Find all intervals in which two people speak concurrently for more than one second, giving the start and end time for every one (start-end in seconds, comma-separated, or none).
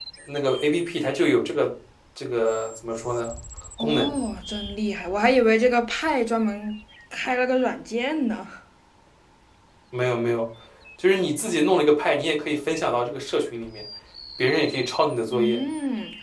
none